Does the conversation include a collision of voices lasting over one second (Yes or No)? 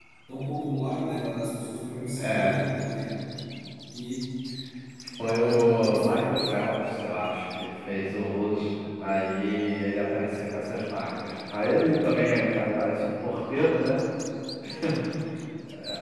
Yes